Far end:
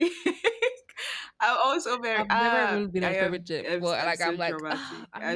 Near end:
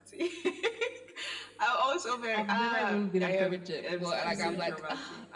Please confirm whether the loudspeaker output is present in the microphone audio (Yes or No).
Yes